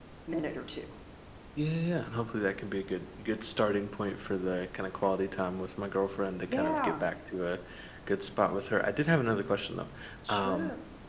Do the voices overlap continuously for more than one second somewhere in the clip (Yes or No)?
No